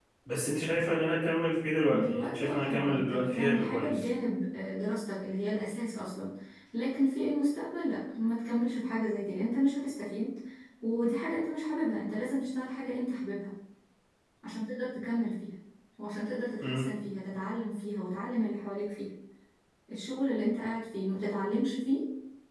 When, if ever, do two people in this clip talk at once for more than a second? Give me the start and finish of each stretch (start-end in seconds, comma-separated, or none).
1.9-4.1